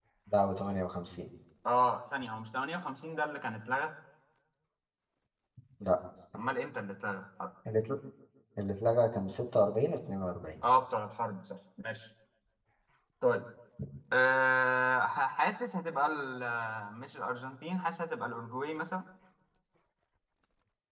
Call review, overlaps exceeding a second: none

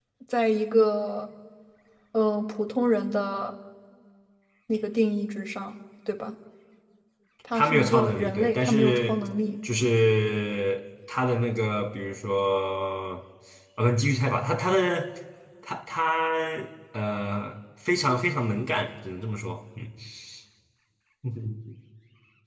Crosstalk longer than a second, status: present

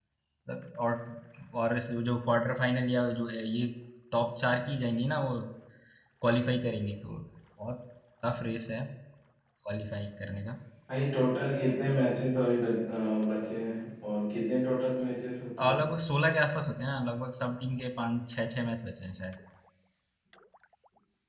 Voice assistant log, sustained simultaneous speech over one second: none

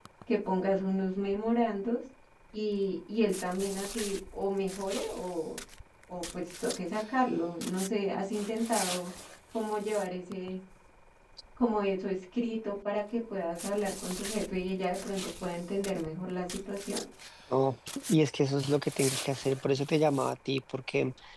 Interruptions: none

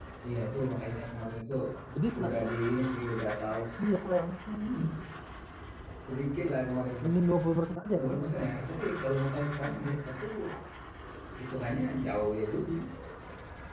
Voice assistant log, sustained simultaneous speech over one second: none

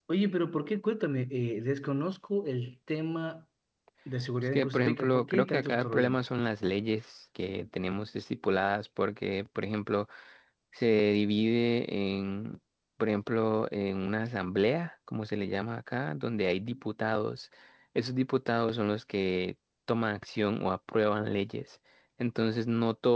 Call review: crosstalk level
present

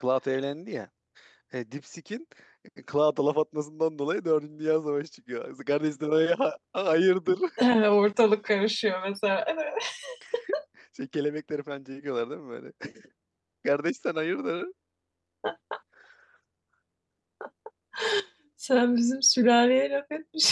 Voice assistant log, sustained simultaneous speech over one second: none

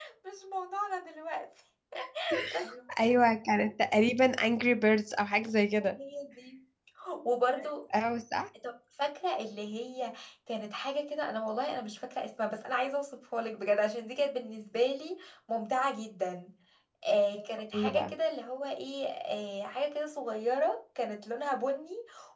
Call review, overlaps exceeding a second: none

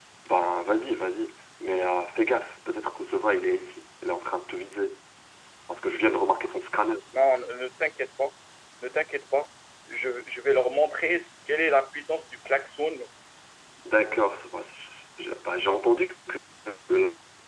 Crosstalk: none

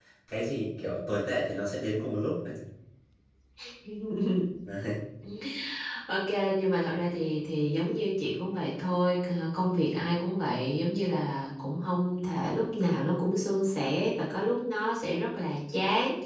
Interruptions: none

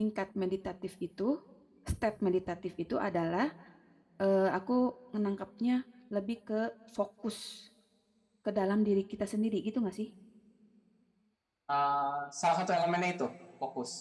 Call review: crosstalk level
none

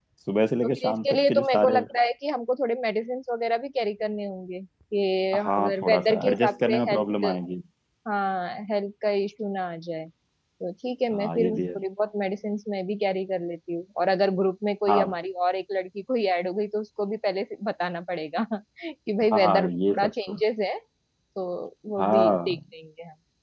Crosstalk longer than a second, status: present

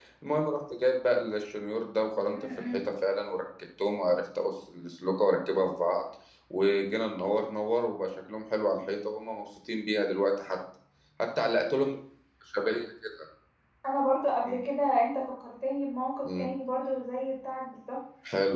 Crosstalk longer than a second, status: none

